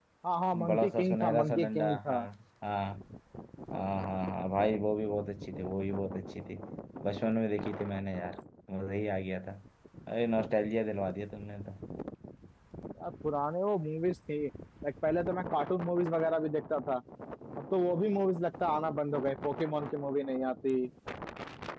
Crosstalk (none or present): present